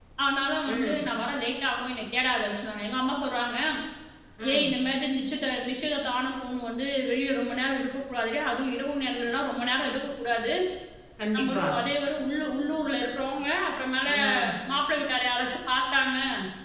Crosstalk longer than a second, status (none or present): none